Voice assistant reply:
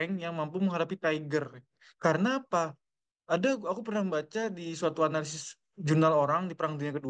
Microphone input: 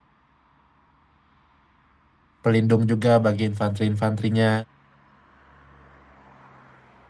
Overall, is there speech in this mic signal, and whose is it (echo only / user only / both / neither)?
user only